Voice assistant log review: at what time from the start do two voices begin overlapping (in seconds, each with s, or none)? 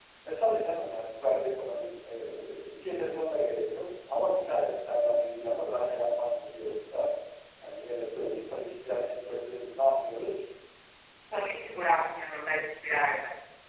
none